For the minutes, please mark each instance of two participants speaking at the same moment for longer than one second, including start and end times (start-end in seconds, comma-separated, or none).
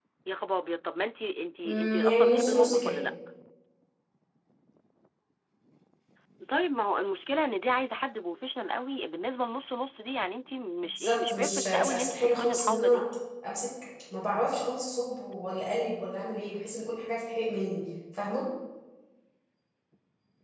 1.6-2.9, 11.0-13.0